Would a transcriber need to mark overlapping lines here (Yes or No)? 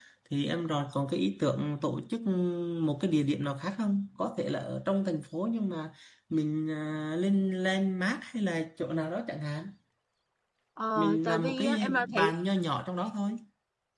Yes